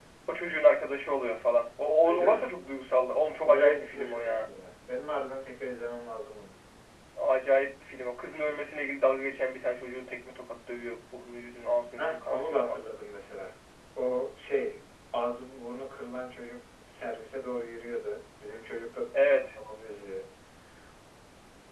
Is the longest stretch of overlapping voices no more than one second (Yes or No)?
No